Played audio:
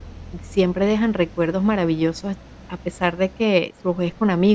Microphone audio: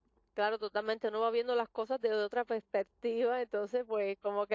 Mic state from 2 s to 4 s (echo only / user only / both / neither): user only